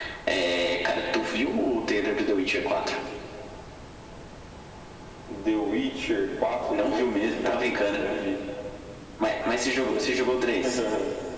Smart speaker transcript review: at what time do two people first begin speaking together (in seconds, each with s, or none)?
6.7 s